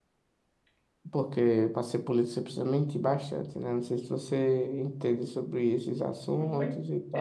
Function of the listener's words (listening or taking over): taking over